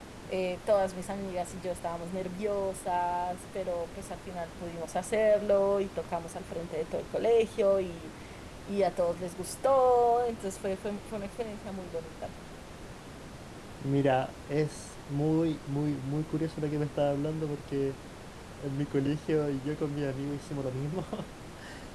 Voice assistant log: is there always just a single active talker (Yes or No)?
Yes